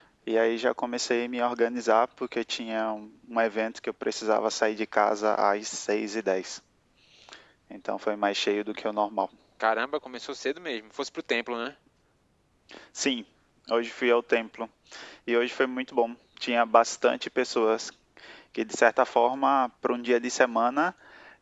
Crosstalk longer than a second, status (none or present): none